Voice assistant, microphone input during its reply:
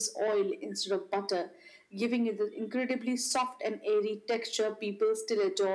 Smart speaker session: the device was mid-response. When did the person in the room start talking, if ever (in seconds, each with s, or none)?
none